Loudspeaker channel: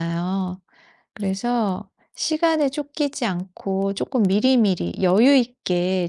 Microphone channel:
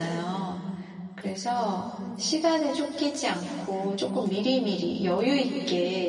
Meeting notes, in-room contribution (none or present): none